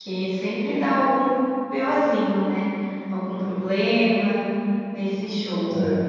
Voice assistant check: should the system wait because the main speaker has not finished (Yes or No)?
Yes